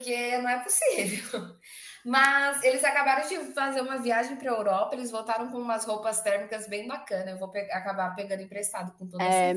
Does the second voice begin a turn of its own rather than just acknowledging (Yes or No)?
Yes